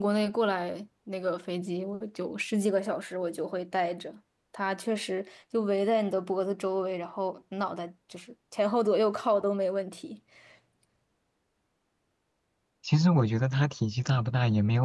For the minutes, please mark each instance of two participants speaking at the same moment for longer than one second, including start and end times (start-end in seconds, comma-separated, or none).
none